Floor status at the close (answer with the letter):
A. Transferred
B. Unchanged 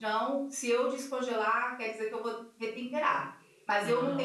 B